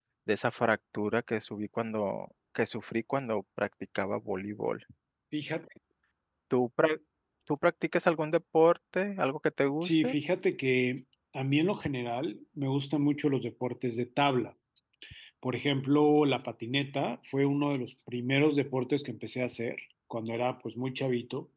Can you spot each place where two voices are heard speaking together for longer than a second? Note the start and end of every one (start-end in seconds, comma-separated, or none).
none